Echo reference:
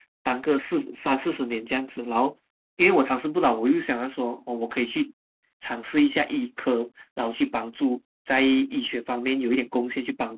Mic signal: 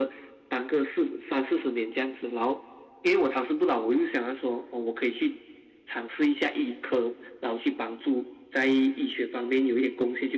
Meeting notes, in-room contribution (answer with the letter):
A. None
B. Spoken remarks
A